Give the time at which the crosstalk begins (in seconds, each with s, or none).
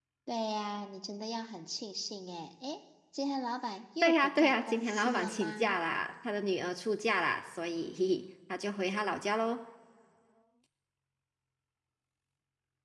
4.0 s